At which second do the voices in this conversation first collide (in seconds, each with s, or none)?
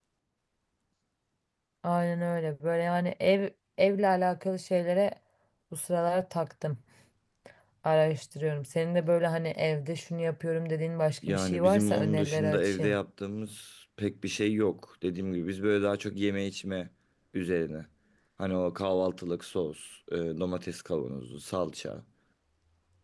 11.2 s